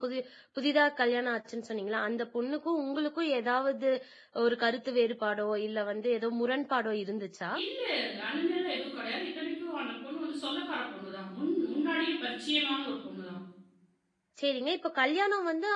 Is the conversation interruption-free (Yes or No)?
Yes